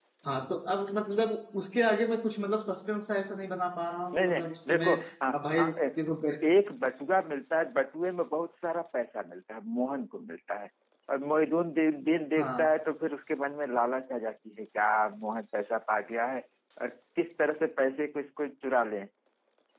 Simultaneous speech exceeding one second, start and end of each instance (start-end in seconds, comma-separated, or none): 4.1-6.0